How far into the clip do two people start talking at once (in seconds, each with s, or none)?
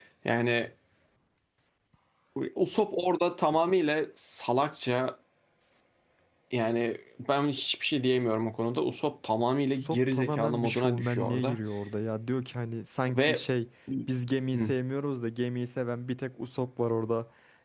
9.8 s